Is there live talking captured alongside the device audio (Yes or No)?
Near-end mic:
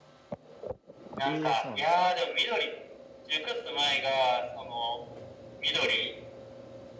Yes